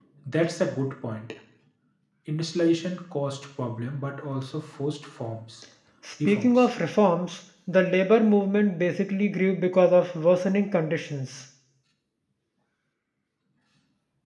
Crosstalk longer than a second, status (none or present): none